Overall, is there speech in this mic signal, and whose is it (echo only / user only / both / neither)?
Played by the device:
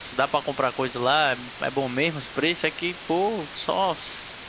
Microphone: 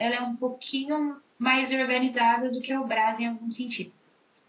user only